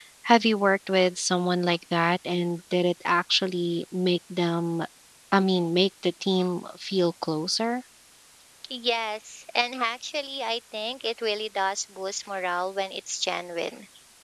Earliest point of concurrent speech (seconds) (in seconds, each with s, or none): none